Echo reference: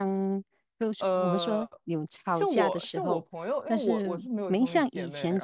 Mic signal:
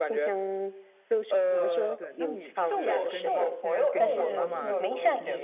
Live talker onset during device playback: 1.5 s

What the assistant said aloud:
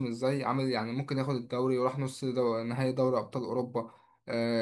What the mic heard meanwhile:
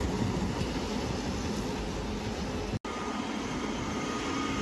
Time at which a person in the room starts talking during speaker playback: none

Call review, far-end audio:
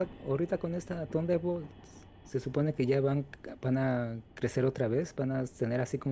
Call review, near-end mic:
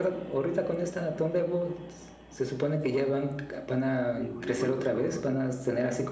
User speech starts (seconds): 4.2 s

